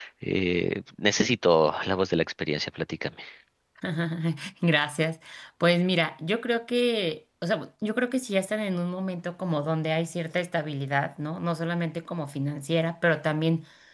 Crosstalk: none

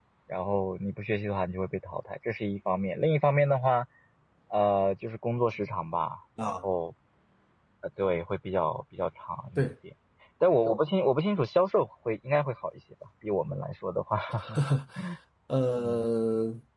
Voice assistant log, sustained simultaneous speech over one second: none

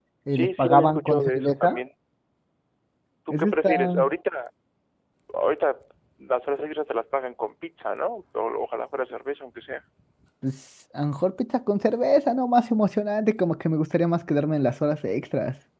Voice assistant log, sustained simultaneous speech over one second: present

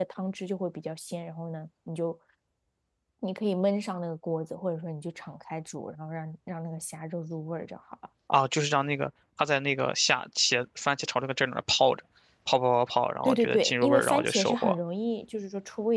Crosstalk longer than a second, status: present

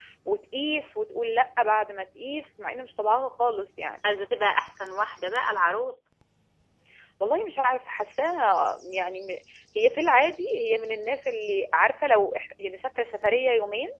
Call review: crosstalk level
none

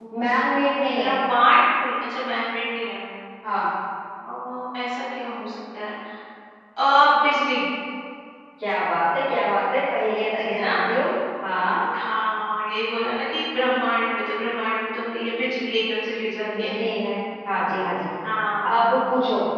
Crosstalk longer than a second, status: none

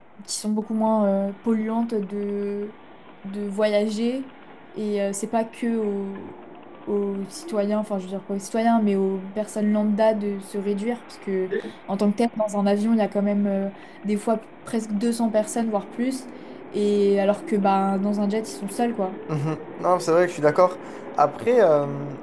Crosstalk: none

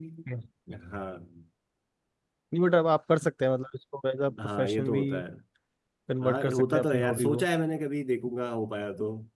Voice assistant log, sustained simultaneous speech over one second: present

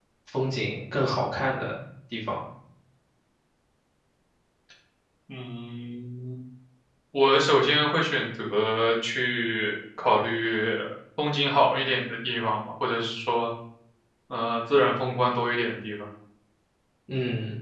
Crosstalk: none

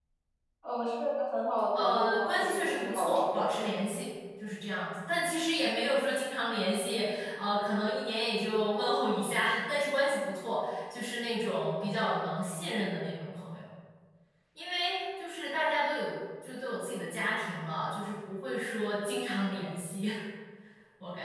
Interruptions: present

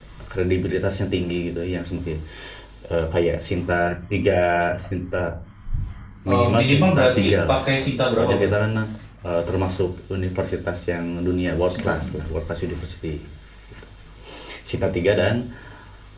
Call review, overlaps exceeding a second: present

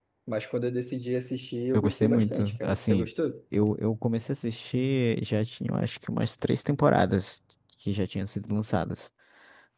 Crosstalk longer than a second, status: present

